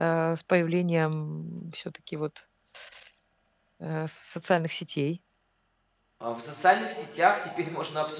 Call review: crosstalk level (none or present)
none